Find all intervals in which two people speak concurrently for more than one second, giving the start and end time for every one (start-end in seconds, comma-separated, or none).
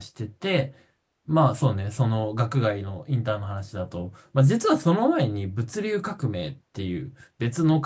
none